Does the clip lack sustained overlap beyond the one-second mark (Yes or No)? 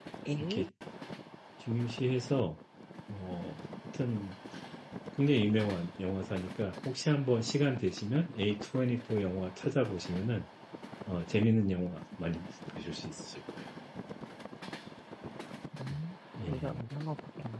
Yes